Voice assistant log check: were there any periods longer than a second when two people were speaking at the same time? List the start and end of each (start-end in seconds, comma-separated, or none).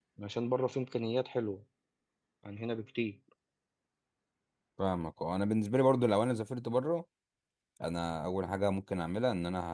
none